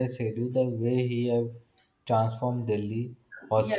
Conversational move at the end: listening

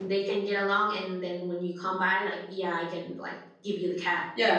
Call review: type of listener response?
taking over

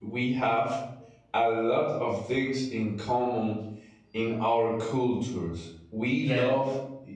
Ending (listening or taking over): listening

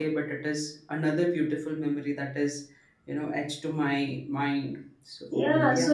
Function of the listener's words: taking over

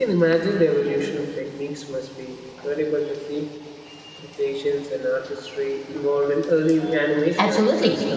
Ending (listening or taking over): taking over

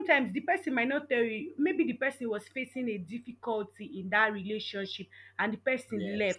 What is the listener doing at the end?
listening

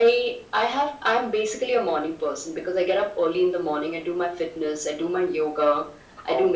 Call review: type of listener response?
listening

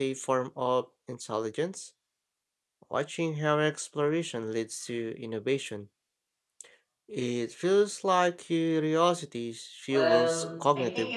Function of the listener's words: taking over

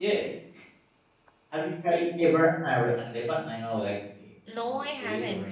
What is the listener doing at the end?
taking over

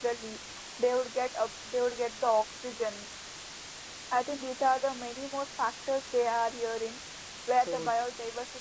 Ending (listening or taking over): listening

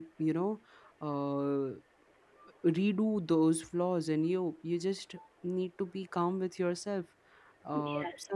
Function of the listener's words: listening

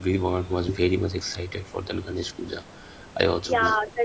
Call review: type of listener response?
taking over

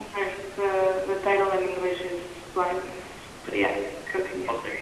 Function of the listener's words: taking over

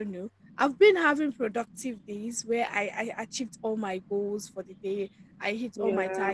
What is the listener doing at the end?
listening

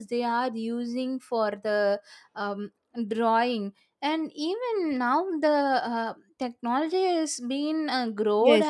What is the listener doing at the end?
taking over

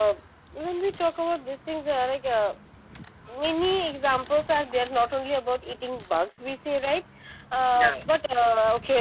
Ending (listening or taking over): listening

